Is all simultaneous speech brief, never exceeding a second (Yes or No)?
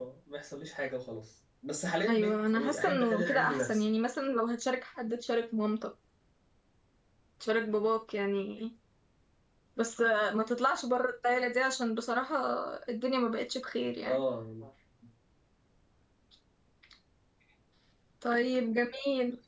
No